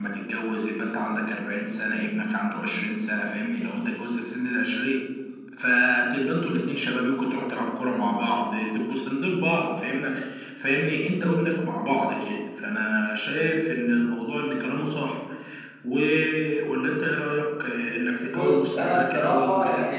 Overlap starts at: 18.3 s

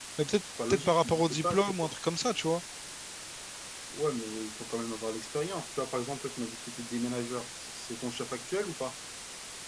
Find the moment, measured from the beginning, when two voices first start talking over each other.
0.7 s

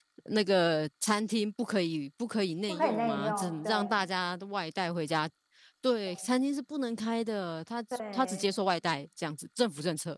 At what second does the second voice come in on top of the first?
2.7 s

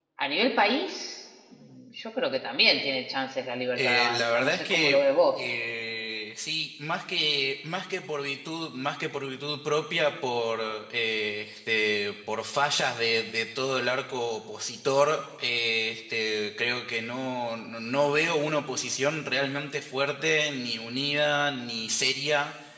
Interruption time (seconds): 3.7 s

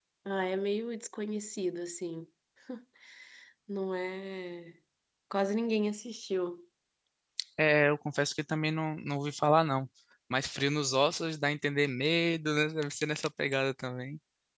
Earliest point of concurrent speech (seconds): none

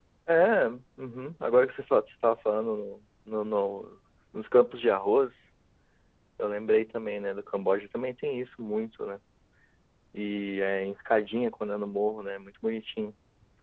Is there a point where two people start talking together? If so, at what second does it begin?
none

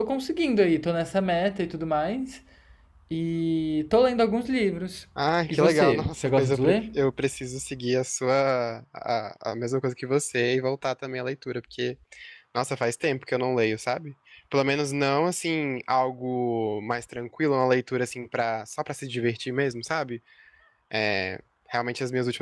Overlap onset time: 5.5 s

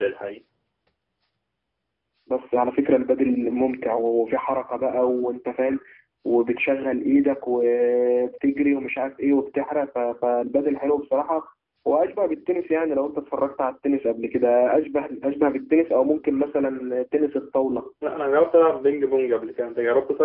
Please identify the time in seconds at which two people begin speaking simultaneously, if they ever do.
none

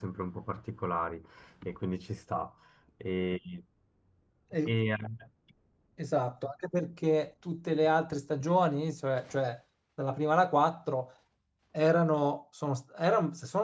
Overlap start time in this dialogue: none

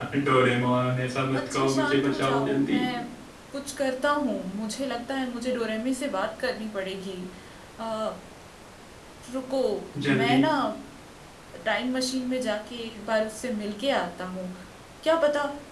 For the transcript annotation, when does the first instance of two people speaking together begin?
1.3 s

